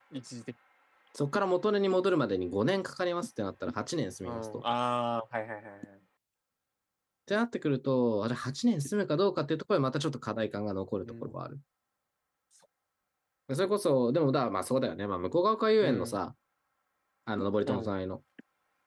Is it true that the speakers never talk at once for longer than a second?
Yes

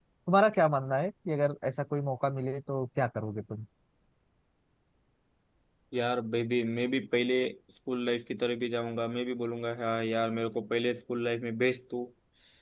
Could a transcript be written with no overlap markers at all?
Yes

